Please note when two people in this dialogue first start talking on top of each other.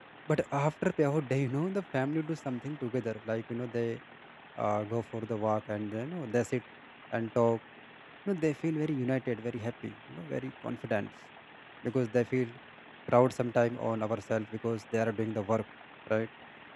none

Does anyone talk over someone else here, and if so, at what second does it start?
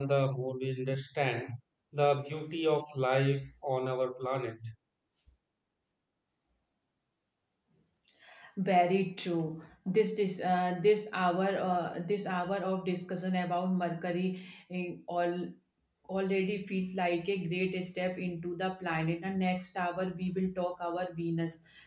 none

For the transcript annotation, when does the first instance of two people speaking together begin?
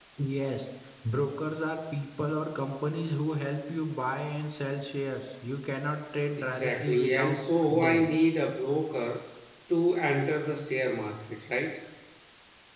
6.4 s

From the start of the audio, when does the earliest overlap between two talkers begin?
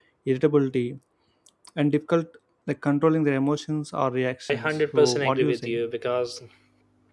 4.5 s

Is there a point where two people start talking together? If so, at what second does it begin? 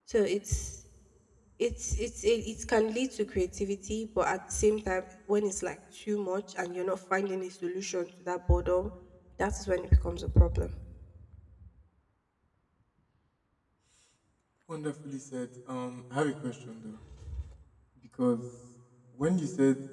none

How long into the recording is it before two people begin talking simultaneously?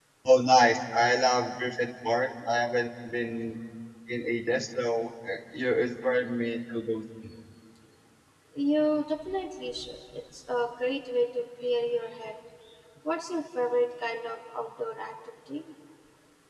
none

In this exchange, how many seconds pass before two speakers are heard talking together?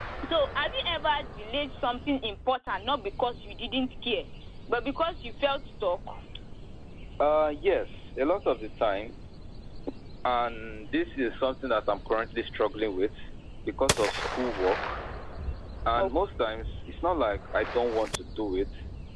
none

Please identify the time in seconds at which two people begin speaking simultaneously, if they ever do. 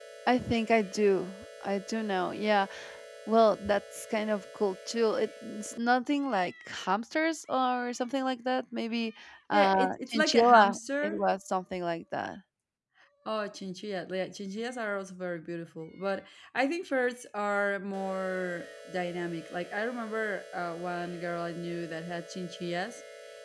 9.5 s

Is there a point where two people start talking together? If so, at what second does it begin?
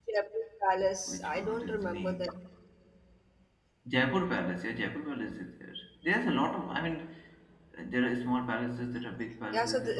1.1 s

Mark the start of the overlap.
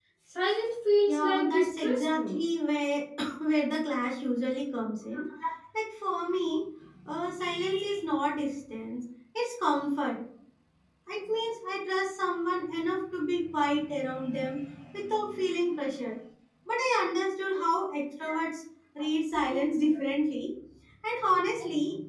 1.1 s

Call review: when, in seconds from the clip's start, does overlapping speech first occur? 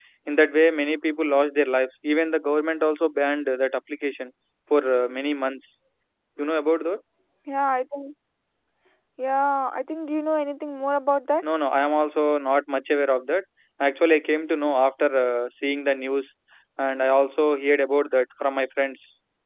none

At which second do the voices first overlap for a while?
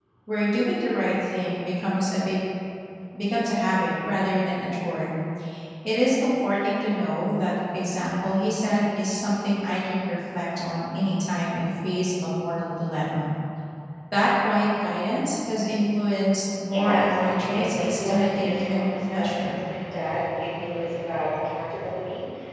16.7 s

